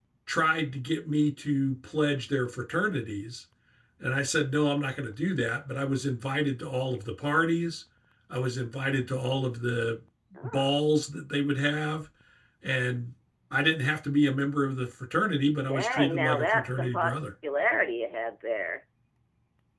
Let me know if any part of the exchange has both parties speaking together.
Yes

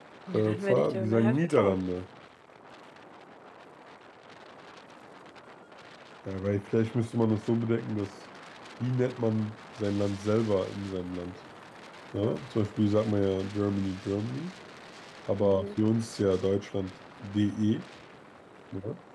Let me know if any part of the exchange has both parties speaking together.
Yes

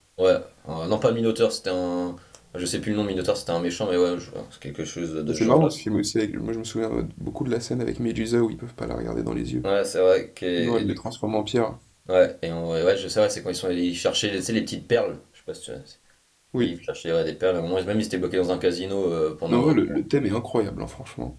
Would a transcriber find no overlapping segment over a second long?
Yes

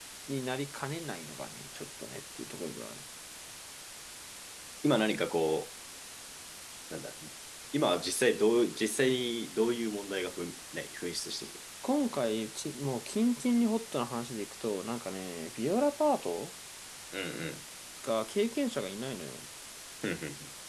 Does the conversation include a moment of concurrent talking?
No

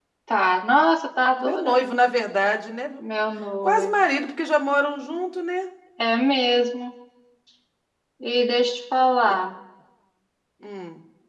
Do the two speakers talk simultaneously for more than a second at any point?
No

